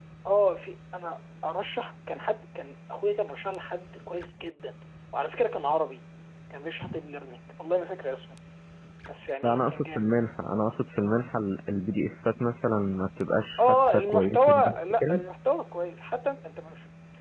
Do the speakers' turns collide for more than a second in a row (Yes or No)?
Yes